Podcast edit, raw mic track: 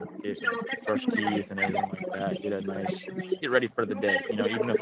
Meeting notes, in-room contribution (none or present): present